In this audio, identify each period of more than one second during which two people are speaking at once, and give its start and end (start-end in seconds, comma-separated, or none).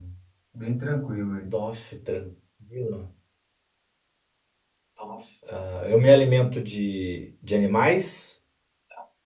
none